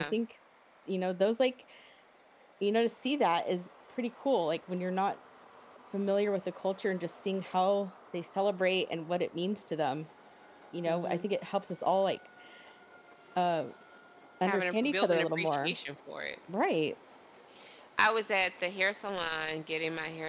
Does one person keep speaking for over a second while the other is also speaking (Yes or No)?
Yes